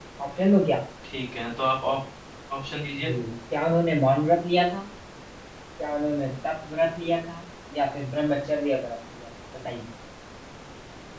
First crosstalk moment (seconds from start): none

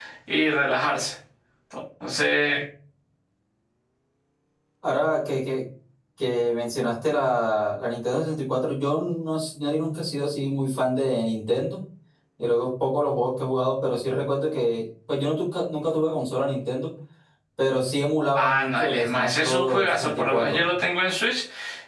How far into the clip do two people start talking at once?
18.4 s

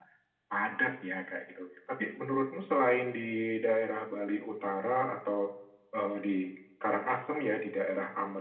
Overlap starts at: none

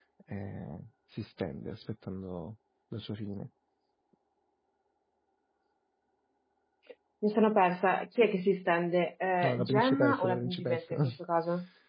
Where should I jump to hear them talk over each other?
9.4 s

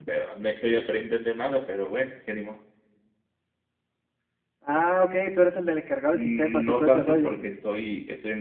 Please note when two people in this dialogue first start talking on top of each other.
6.1 s

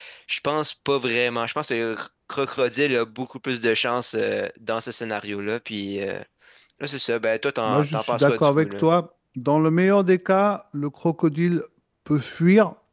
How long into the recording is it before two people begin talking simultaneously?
7.6 s

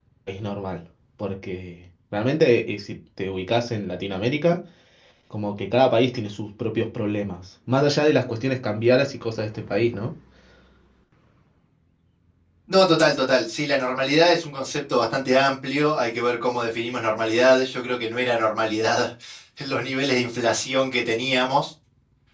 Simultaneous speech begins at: none

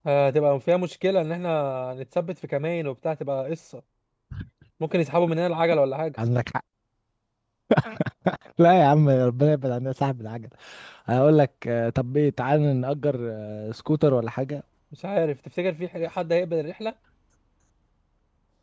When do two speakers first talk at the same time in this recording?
none

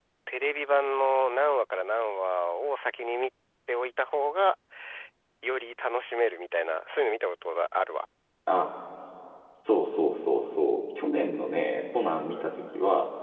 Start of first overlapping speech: none

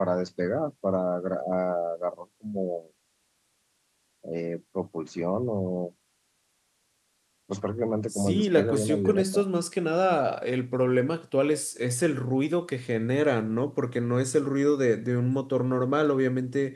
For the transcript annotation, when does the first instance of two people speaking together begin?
8.1 s

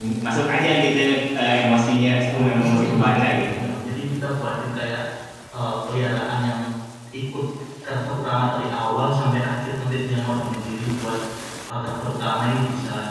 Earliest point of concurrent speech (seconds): 2.3 s

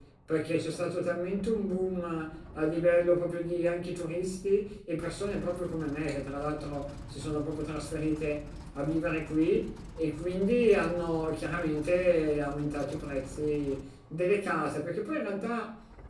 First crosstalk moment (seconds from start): none

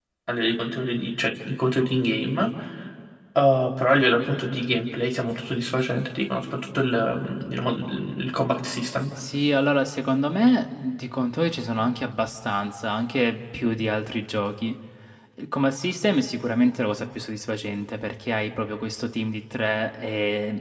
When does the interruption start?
none

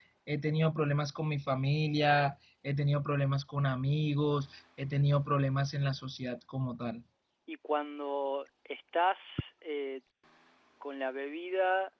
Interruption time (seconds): none

